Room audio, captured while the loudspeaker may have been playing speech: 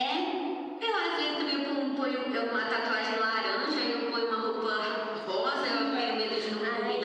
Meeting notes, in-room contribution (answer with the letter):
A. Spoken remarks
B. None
A